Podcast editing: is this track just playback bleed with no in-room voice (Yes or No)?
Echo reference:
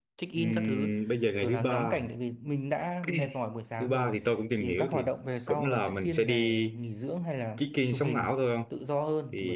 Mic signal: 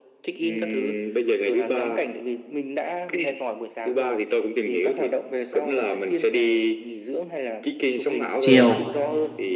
No